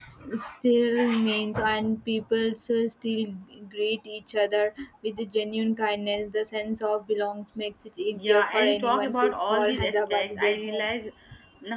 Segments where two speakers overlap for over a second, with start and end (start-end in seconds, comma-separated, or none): 8.1-10.9